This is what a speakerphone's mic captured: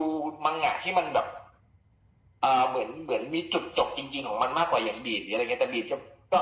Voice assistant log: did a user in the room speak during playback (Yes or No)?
No